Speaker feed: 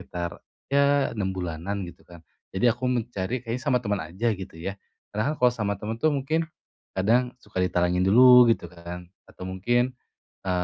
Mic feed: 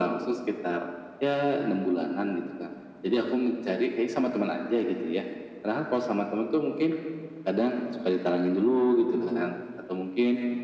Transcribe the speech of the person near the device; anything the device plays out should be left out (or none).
none